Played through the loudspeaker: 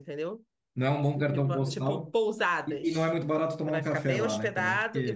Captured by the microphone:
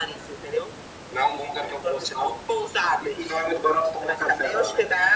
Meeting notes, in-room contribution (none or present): none